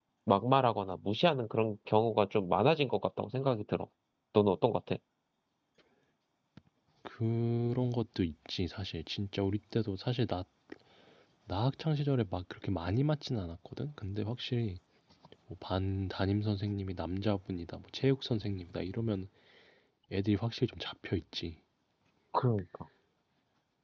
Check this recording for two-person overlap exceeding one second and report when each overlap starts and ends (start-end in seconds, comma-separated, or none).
none